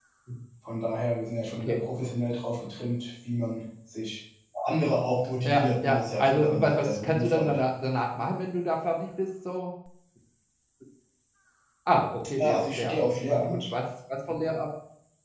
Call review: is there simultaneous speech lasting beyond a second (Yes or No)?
Yes